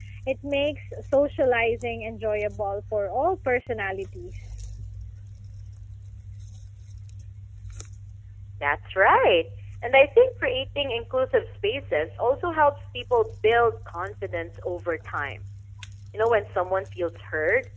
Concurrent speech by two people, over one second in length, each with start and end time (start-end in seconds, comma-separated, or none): none